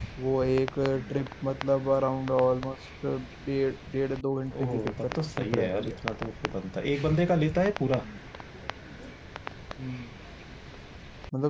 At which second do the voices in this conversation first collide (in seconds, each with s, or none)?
4.5 s